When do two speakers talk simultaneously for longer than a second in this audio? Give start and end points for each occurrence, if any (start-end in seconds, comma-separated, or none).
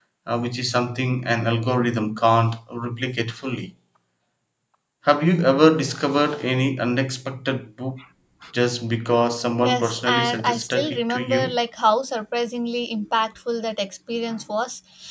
9.6-11.6